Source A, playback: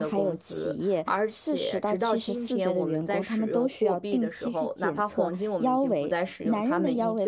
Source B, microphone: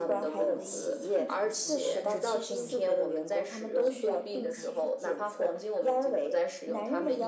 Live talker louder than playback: No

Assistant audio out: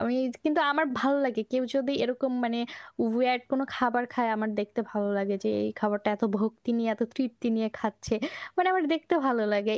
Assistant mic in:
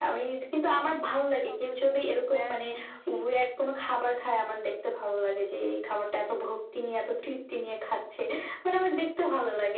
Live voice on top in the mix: No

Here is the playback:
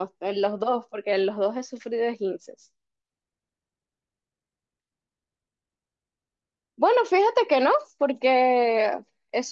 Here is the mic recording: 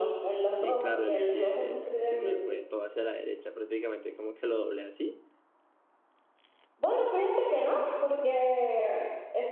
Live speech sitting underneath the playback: Yes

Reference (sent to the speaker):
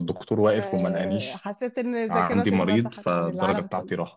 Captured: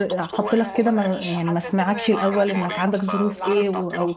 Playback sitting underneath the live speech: Yes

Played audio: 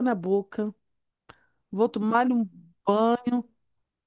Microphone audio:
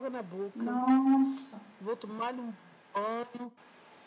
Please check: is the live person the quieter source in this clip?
No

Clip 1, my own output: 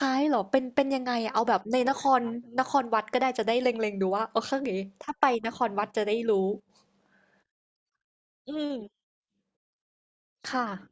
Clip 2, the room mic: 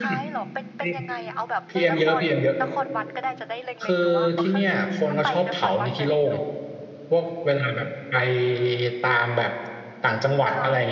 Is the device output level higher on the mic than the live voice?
No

